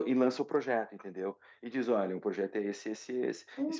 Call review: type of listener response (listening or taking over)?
taking over